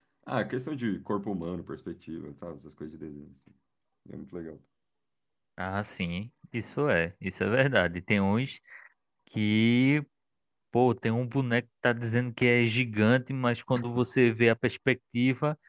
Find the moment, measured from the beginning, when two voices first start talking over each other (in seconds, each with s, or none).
none